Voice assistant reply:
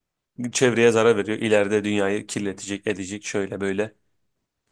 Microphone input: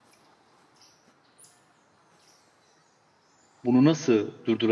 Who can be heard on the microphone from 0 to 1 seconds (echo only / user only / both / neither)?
neither